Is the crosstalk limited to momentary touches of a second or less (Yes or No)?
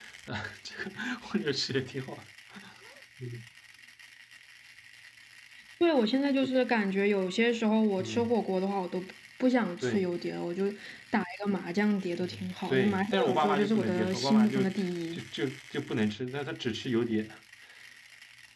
No